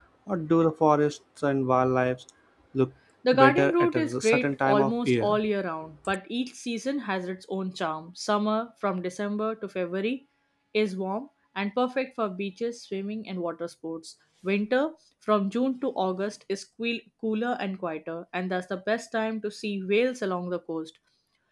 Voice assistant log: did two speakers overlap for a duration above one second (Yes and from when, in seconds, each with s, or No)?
Yes, from 3.3 s